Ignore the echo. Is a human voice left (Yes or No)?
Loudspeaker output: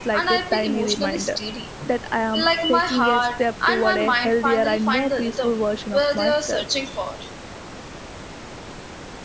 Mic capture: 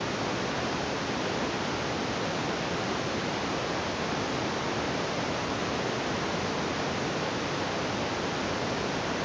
No